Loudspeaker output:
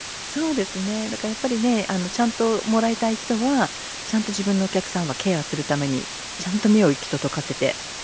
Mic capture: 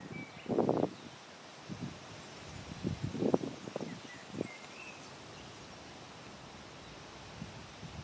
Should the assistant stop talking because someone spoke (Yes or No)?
No